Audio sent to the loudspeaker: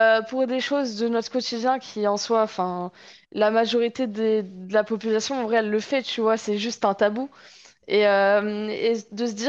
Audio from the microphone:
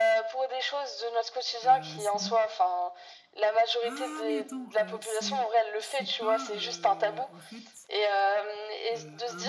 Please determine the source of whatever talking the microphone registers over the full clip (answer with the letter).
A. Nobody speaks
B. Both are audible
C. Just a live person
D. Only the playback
B